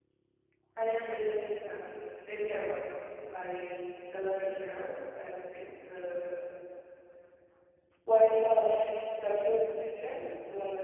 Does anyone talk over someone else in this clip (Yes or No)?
No